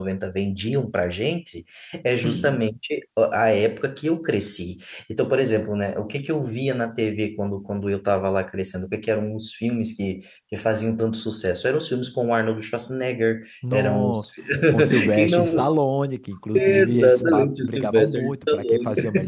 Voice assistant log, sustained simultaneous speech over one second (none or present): present